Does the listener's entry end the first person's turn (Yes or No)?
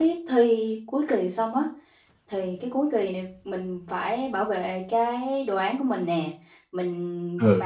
No